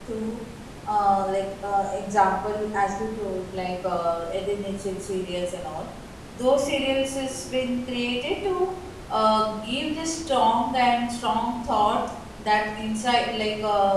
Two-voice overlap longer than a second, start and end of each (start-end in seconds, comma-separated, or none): none